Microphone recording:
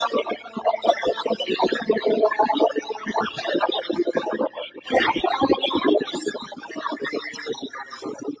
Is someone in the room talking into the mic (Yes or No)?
No